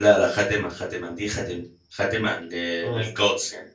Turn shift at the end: No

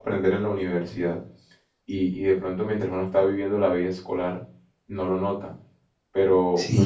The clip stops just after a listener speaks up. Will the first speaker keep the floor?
No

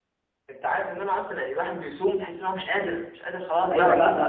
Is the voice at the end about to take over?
Yes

